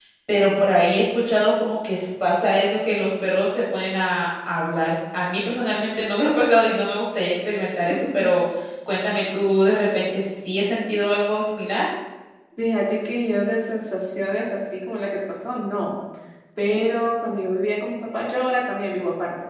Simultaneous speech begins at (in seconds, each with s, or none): none